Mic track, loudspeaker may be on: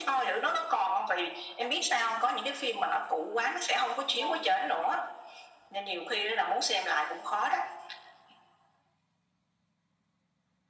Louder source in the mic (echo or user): echo